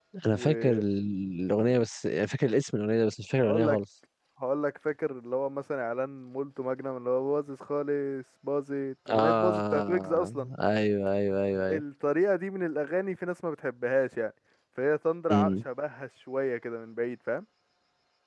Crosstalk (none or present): present